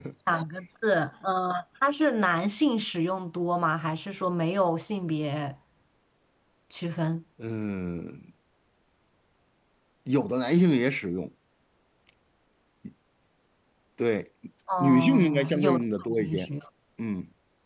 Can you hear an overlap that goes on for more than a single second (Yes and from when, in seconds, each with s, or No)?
Yes, from 14.8 s